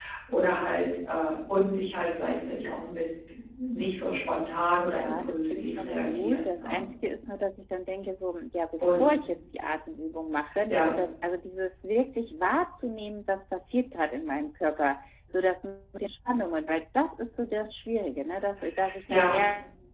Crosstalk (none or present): present